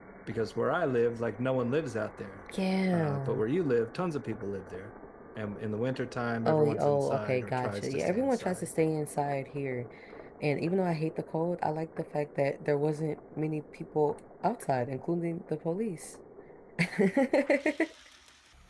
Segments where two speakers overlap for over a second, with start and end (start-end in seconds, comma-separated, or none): 6.5-8.7